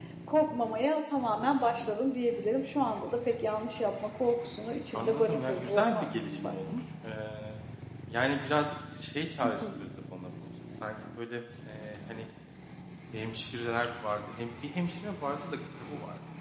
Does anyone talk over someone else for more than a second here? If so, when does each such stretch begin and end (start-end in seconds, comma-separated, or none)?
4.9-6.5